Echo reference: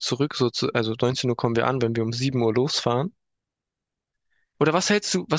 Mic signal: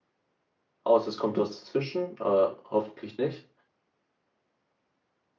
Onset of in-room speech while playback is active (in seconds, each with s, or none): 0.8 s